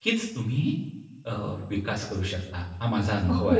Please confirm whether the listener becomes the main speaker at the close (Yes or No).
Yes